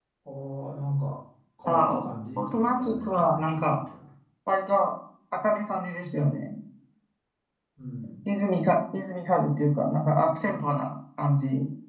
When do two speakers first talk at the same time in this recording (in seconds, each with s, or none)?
1.7 s